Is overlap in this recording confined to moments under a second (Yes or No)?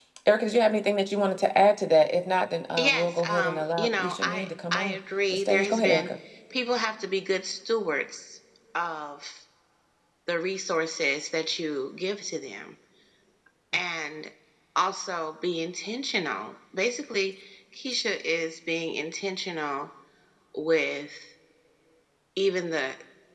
No